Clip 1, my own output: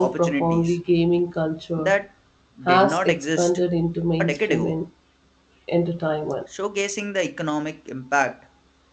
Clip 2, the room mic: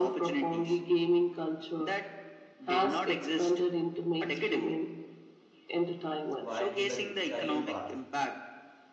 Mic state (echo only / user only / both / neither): both